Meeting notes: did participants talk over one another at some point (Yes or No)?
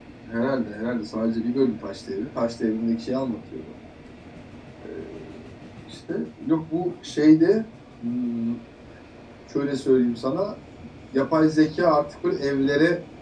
No